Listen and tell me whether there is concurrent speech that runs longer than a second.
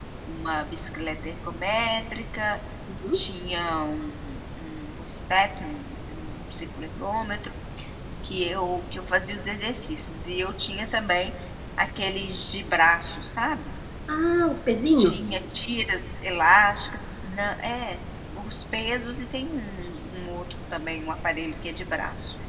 No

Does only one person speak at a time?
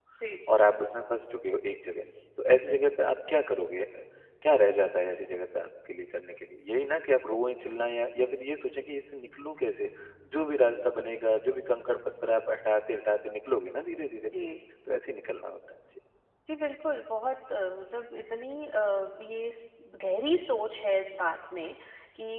Yes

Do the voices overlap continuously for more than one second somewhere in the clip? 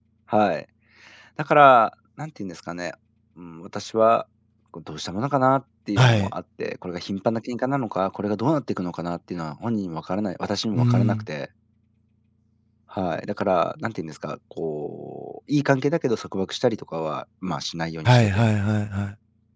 No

